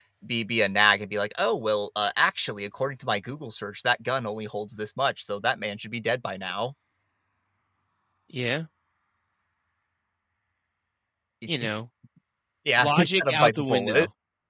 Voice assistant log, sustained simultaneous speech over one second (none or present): present